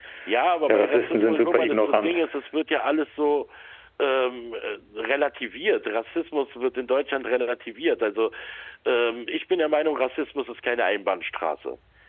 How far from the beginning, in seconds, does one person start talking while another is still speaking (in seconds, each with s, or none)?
0.7 s